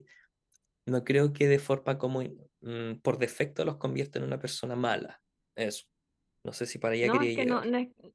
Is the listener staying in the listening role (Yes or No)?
No